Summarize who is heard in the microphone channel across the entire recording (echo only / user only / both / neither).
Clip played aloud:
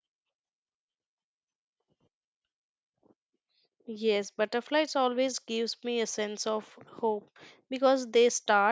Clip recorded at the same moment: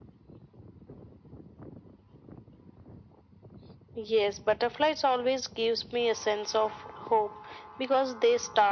echo only